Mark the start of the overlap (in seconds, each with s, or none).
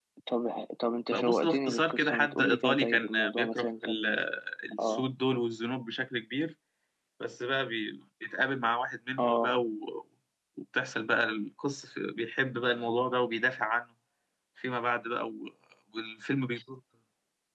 1.1 s